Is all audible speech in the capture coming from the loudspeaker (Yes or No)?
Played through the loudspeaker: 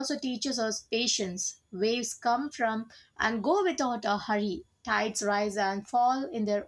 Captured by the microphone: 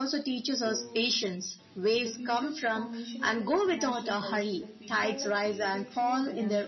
No